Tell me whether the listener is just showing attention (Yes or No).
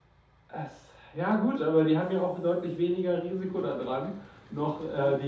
No